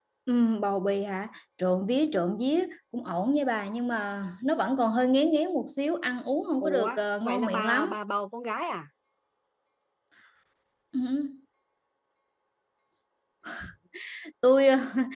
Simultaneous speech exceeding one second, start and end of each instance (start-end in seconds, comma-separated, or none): 6.6-8.0